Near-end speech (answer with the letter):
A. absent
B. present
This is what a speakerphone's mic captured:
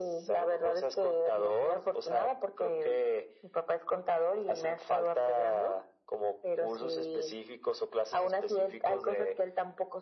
A